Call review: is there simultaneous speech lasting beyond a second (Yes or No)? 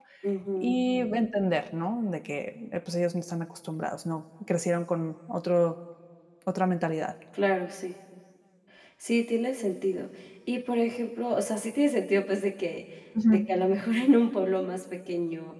No